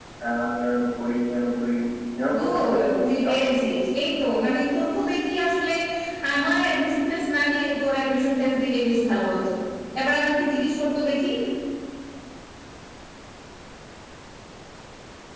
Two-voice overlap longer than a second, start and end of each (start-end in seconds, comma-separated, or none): 2.3-3.6